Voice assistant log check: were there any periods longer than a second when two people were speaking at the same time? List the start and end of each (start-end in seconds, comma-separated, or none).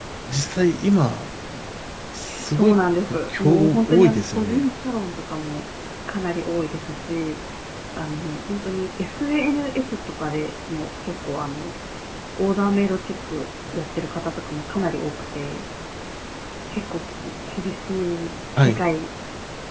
2.5-4.6